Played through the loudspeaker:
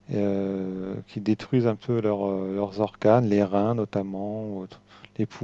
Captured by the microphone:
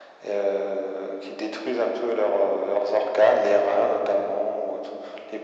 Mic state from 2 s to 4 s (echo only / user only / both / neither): echo only